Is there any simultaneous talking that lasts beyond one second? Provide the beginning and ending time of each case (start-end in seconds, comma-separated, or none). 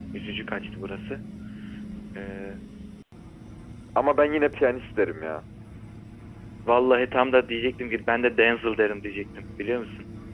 none